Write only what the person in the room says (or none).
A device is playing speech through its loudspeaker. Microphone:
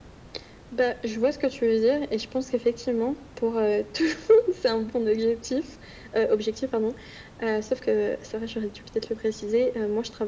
none